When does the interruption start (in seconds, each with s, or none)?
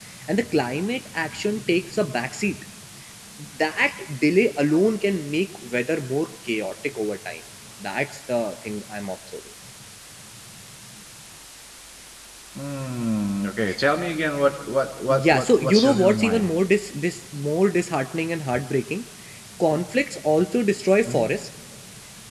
15.1 s